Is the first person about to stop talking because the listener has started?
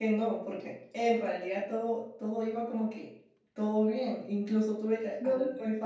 No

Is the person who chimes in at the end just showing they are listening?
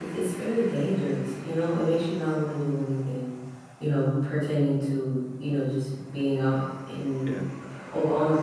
Yes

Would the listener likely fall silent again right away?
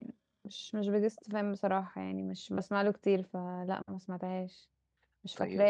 Yes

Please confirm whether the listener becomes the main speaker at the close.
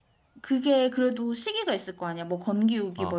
Yes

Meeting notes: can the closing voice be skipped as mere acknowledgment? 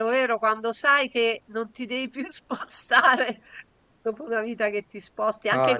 Yes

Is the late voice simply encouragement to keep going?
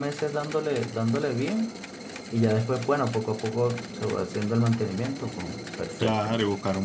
No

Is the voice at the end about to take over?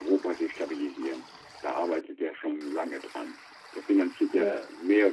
No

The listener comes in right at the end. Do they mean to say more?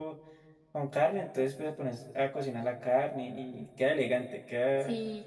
Yes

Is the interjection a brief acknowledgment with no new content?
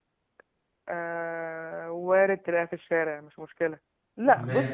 Yes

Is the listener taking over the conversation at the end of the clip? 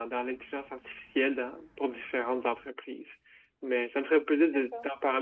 No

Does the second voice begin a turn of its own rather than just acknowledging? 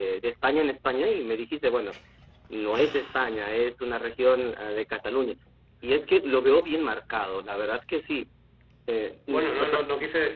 Yes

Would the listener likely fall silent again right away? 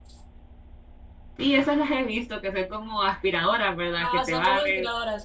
No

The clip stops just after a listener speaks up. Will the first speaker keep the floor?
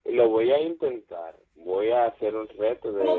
No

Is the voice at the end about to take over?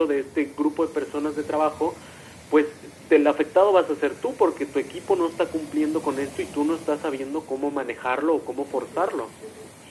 Yes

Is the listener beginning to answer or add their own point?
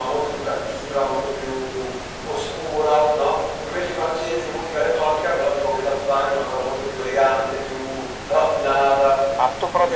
Yes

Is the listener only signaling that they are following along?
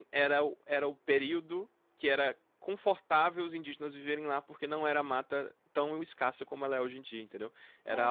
Yes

